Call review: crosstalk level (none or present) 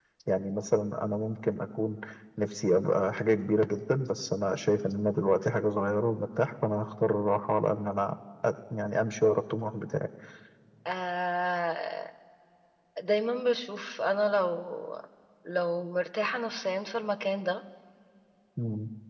none